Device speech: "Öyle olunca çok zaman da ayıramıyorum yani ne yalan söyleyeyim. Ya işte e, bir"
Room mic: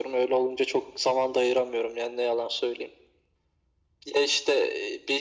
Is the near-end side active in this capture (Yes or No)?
No